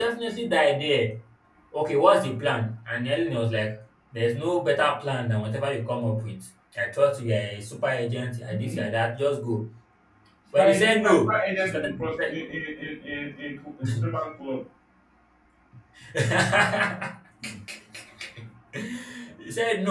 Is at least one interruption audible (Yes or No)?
Yes